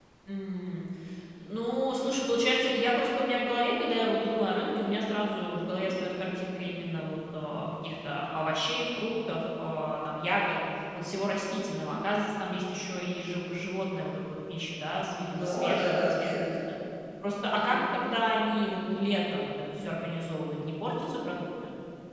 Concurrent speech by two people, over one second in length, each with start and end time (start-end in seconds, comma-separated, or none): 15.3-16.6